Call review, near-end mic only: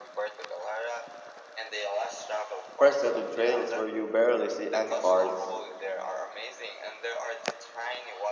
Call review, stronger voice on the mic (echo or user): user